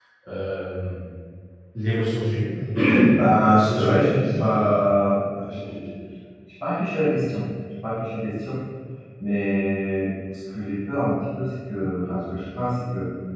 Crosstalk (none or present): present